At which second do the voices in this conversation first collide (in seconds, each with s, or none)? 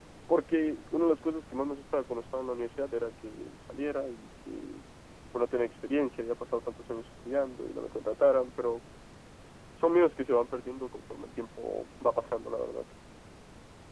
none